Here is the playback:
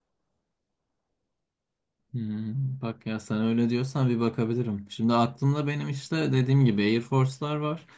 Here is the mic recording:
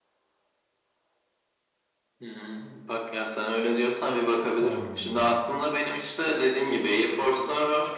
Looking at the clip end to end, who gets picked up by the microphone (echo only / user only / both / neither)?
both